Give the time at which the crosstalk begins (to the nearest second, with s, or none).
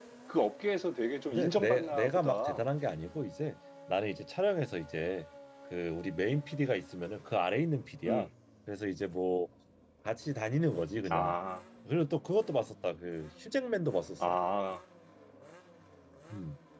1 s